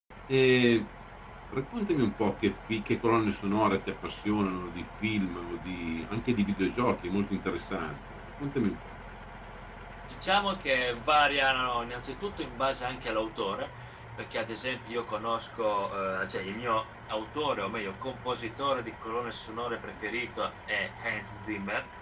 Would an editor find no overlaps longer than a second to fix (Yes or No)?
Yes